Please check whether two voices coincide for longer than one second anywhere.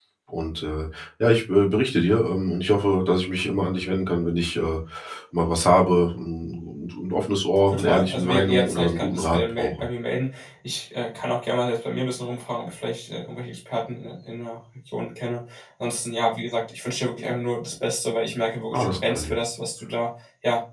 Yes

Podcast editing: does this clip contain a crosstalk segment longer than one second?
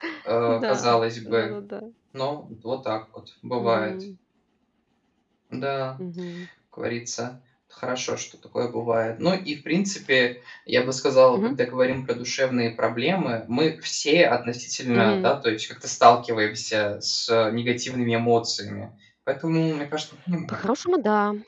No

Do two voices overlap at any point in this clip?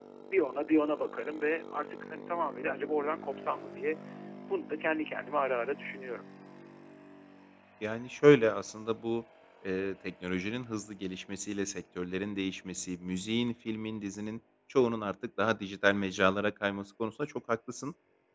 No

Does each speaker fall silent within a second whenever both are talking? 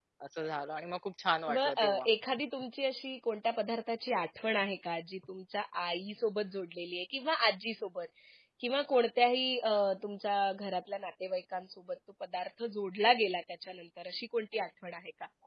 Yes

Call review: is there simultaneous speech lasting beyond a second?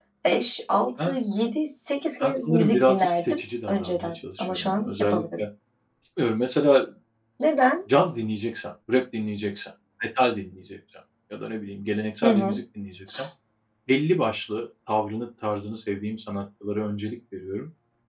Yes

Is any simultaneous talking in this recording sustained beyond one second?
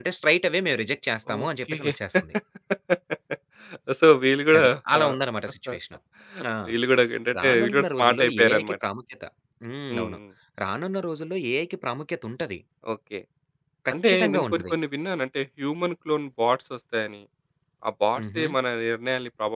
Yes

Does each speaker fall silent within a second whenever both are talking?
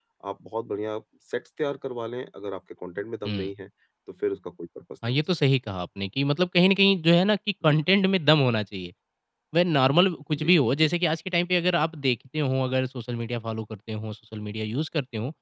Yes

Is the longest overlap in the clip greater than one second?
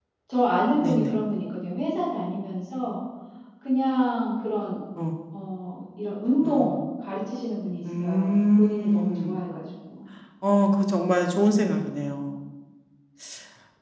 Yes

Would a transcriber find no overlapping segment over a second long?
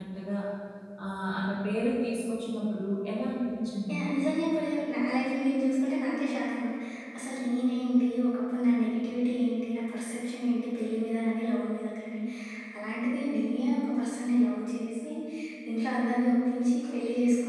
Yes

